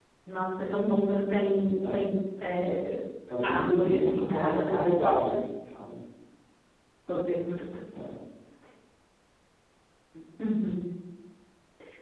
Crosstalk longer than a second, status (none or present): present